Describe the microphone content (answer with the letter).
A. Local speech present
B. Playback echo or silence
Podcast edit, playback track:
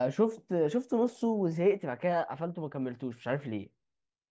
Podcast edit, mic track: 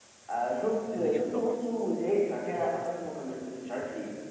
A